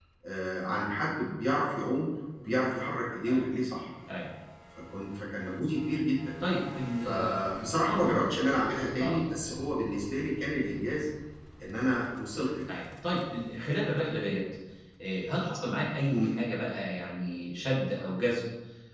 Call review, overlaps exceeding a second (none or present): none